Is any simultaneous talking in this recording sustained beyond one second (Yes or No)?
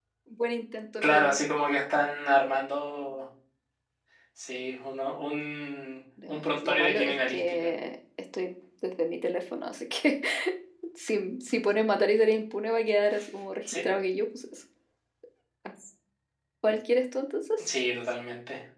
Yes